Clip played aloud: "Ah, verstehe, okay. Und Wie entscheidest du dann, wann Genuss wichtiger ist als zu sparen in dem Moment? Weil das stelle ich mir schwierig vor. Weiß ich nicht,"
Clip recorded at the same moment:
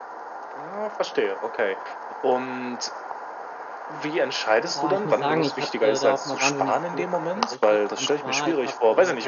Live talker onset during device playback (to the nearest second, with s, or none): 5 s